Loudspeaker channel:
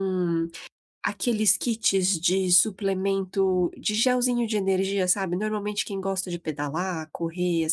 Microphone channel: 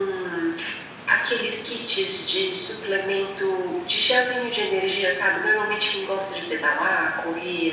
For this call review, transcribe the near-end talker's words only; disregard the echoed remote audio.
none

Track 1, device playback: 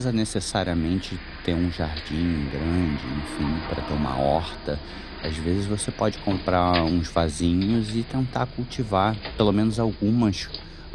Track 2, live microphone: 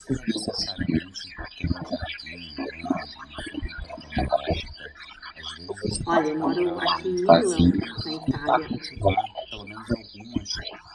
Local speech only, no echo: Olha, eu moro aqui em Milão, na Itália.

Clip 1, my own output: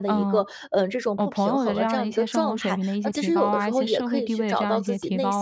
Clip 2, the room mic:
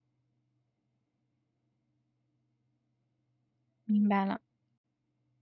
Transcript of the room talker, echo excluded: 明白了。

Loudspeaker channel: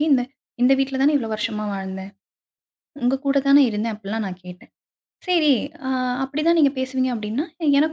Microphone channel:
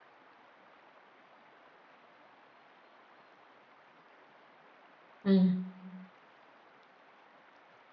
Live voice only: ம்.

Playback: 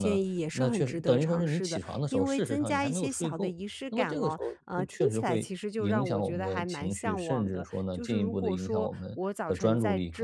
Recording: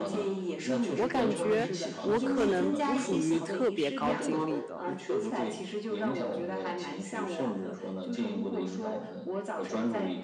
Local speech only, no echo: 我感觉我可能不属于特别高精力的，

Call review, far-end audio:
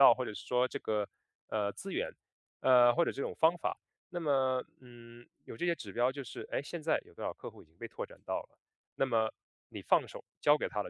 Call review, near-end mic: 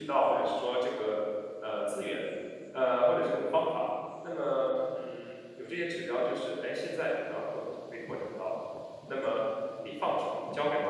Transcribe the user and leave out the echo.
none

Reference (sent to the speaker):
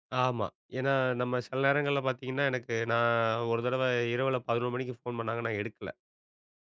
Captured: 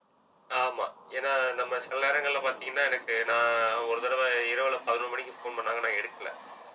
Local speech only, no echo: none

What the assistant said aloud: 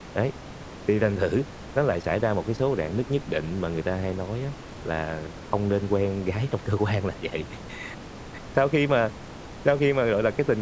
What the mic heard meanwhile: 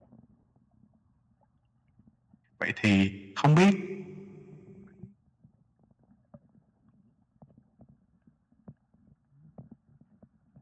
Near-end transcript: vậy thì không biết

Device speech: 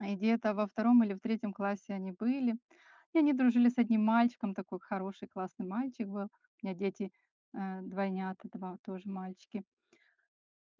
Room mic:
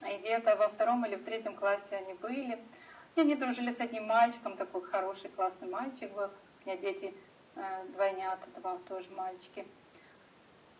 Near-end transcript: none

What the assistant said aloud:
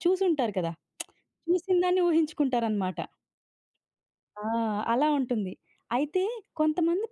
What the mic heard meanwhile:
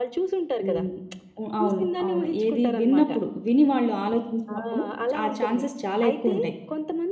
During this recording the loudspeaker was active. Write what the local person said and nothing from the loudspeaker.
హ్మ్. ఉ అవును. అవును. ఏది విన్నప్పుడు, విని వాళ్ళు ఆలోచించినప్పుడు ఆ ఛాన్సెస్ చాలా ఎక్కువుంటాయి.

